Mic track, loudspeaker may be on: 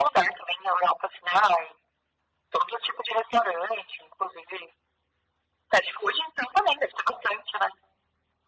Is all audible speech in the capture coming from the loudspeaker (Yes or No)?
Yes